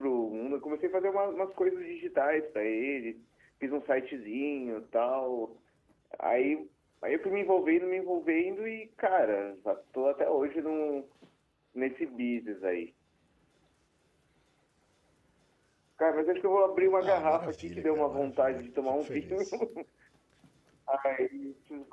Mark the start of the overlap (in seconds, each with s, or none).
17.0 s